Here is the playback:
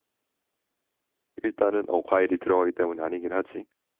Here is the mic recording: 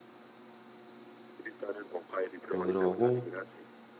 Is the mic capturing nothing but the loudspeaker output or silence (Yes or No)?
No